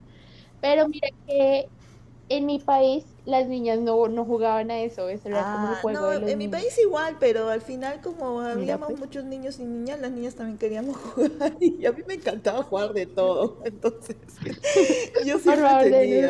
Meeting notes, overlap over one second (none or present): present